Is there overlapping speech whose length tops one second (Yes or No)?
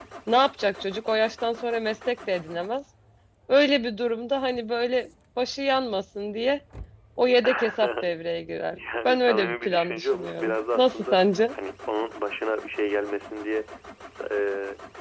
Yes